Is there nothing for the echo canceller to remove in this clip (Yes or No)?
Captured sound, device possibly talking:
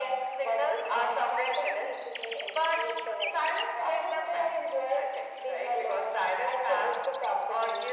No